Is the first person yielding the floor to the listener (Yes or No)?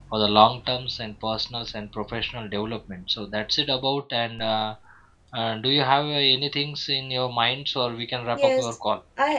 Yes